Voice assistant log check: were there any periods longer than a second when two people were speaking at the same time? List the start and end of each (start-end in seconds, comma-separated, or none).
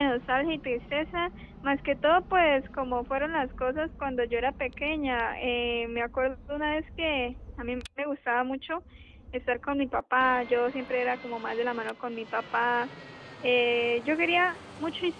none